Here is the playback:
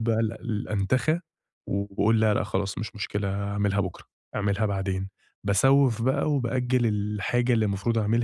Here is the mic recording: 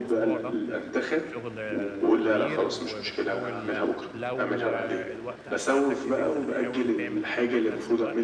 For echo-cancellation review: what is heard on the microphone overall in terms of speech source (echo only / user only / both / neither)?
both